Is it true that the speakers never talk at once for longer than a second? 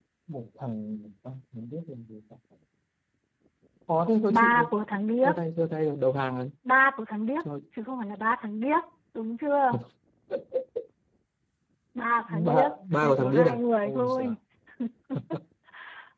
No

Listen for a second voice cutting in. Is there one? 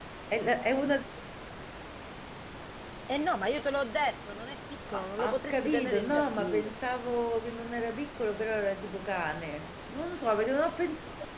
Yes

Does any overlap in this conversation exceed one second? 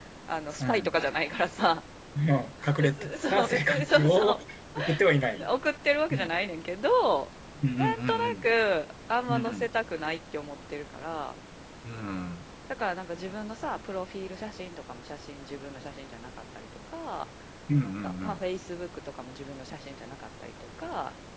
Yes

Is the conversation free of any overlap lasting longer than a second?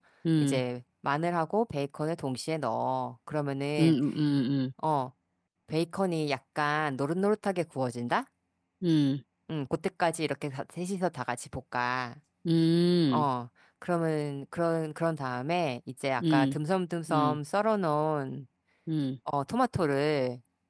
Yes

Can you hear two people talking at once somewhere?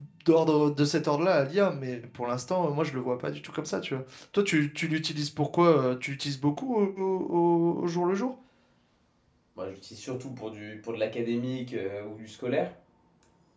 No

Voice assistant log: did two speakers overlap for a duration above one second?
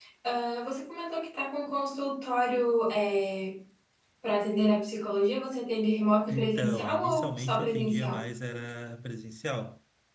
Yes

